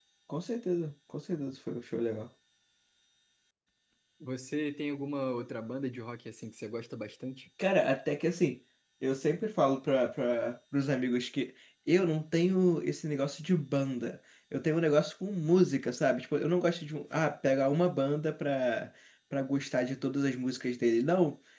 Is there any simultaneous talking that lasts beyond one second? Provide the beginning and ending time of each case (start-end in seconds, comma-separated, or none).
none